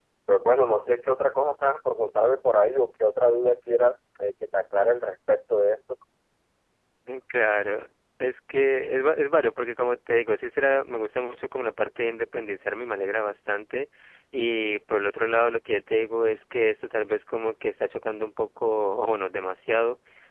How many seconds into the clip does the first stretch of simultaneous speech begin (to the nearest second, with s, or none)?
none